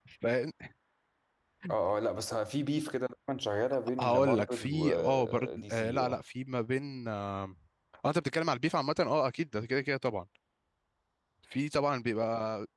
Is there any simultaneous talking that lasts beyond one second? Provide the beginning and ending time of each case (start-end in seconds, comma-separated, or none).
4.0-6.2